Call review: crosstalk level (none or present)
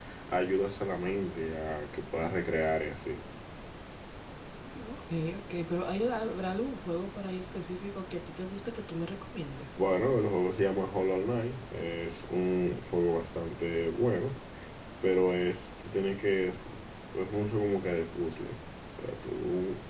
none